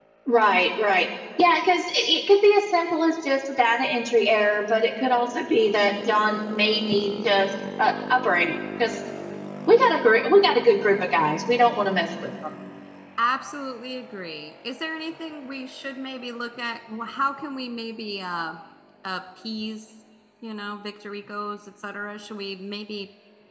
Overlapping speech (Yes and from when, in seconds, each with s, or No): No